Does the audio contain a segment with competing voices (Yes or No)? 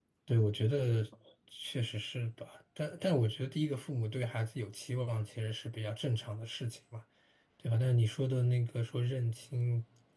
No